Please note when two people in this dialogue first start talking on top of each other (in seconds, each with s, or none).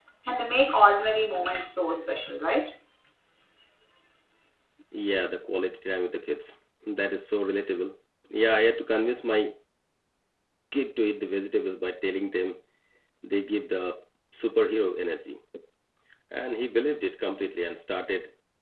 none